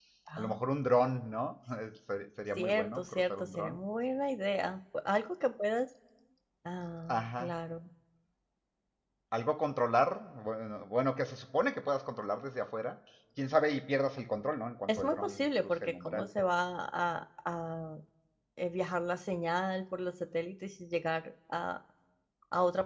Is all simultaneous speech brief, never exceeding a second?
No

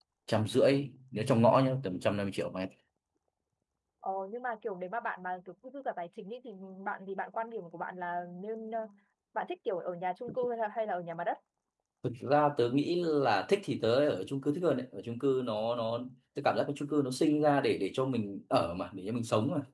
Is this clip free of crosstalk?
Yes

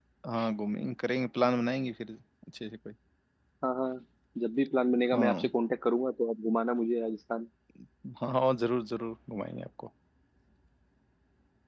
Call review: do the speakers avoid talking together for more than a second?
Yes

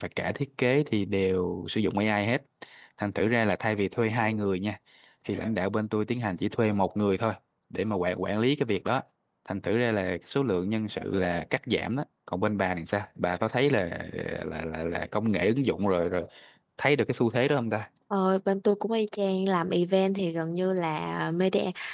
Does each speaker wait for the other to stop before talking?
Yes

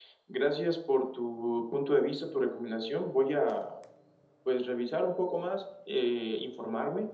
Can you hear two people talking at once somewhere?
No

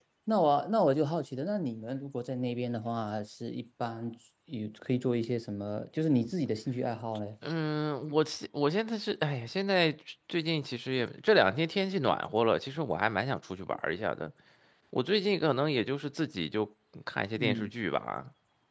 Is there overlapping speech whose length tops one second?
No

